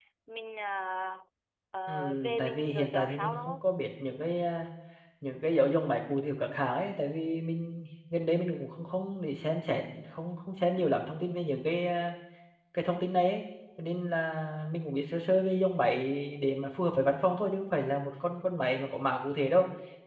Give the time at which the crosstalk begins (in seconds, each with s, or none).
1.9 s